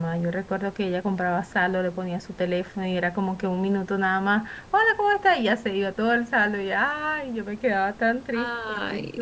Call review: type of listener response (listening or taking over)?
listening